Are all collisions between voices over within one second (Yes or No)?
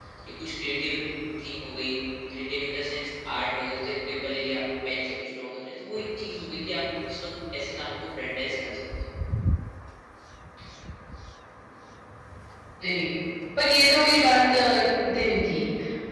Yes